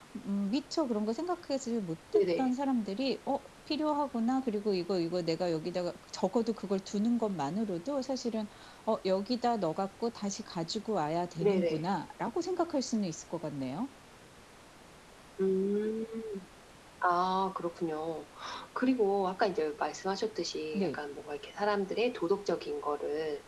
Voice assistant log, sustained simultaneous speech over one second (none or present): none